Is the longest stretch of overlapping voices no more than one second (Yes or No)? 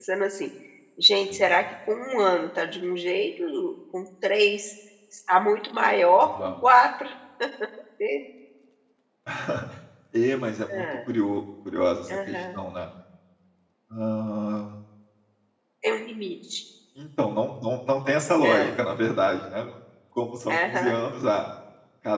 Yes